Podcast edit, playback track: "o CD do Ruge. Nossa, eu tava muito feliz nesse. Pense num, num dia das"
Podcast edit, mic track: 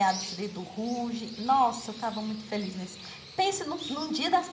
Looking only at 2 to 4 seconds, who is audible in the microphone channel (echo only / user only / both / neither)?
echo only